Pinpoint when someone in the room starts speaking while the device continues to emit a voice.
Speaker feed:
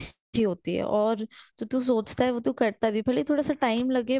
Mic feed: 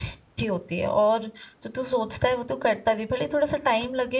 none

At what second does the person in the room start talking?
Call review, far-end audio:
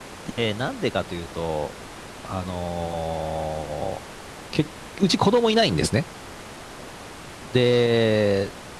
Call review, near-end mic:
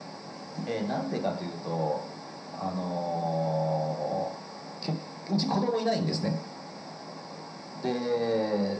none

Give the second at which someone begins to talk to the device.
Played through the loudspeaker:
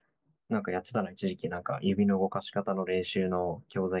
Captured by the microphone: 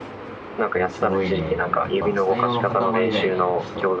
1 s

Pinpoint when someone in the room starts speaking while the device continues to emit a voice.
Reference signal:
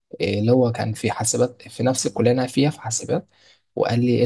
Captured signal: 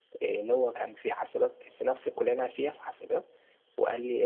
none

